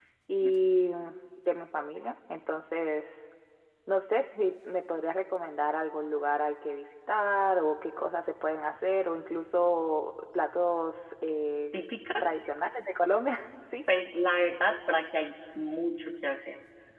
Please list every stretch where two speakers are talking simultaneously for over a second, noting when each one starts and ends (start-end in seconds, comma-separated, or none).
none